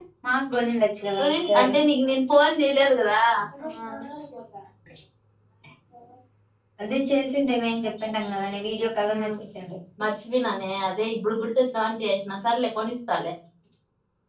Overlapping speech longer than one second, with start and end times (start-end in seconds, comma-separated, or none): none